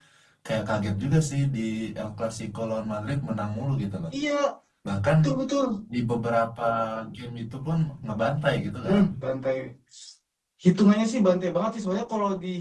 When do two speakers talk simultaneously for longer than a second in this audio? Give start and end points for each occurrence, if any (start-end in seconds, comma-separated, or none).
none